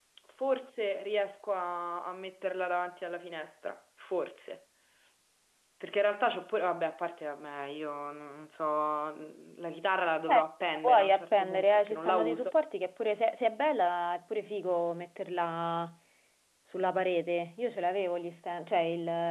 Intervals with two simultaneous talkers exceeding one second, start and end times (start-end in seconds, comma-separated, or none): 10.7-12.5